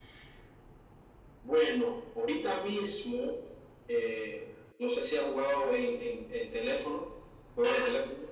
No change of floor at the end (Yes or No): No